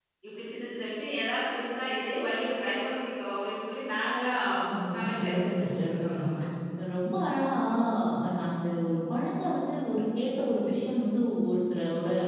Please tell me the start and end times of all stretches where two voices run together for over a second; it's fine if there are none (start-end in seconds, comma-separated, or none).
4.9-6.2